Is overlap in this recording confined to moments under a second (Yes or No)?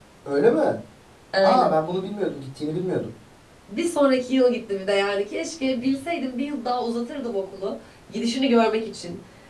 Yes